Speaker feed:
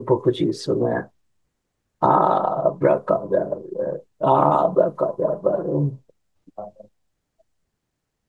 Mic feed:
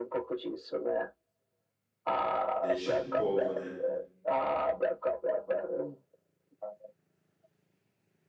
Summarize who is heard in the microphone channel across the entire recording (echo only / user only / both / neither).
both